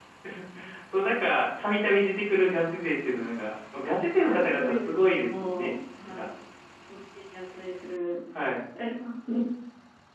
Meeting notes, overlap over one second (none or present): present